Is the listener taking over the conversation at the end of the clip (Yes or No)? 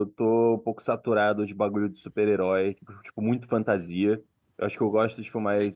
No